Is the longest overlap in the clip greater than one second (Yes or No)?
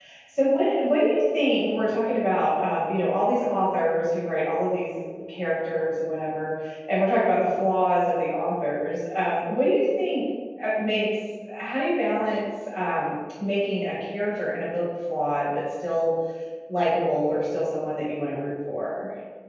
No